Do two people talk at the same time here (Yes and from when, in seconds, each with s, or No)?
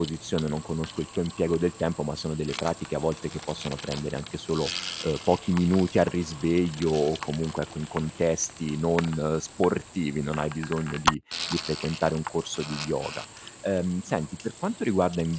No